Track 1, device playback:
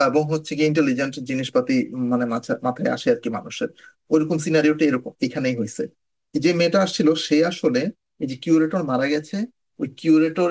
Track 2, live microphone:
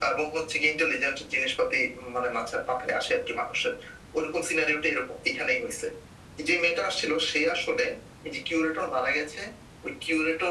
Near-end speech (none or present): none